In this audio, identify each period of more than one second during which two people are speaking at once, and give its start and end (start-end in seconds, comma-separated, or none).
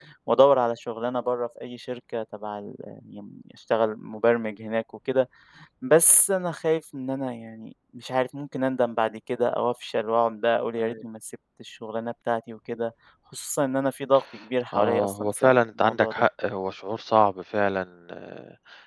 14.7-16.1